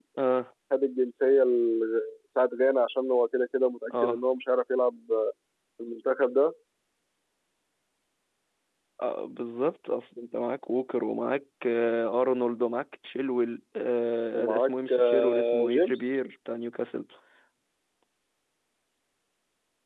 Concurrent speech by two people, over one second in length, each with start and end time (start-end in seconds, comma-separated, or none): 14.3-16.0